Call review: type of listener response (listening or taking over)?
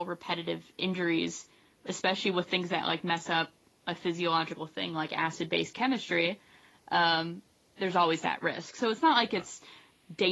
listening